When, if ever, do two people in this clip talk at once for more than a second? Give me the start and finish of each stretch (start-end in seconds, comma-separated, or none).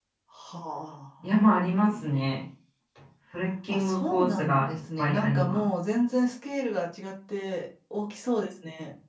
3.7-5.7